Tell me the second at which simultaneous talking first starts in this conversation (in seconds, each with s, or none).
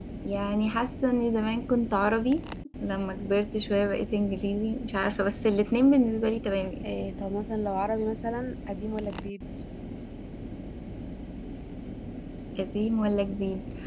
none